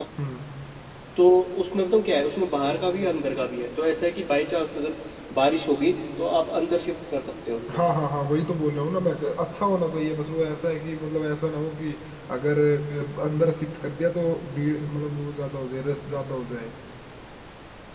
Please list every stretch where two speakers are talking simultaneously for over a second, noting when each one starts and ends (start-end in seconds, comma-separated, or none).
none